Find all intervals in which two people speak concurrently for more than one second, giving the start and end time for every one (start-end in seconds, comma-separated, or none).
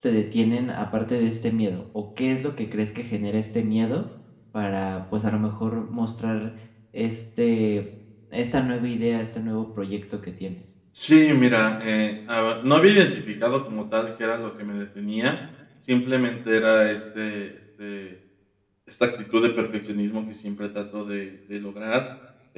none